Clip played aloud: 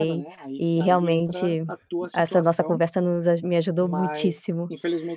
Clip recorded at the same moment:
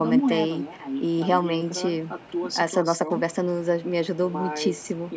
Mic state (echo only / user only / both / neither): echo only